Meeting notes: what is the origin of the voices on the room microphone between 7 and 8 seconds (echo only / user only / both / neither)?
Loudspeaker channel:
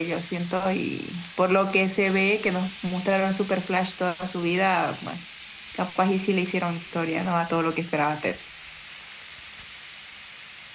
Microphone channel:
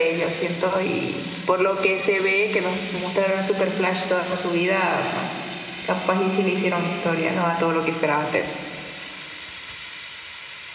echo only